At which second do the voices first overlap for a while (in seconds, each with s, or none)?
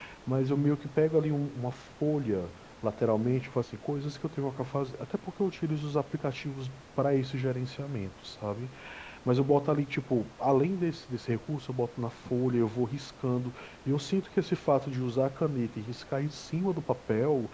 none